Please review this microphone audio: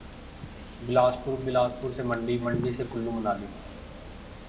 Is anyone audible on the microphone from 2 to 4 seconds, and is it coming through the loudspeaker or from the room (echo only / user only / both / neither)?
user only